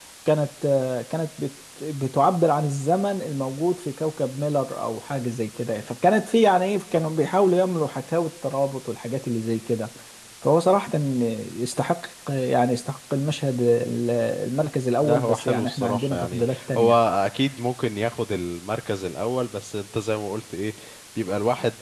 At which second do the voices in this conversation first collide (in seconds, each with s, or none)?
15.0 s